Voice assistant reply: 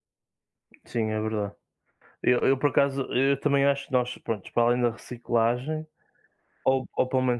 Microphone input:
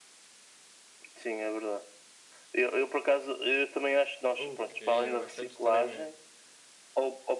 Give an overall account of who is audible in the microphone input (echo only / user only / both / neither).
both